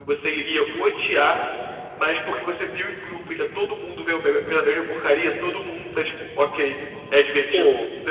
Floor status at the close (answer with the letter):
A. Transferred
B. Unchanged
A